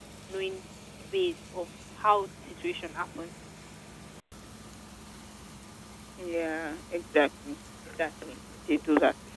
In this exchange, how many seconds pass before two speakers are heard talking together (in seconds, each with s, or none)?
none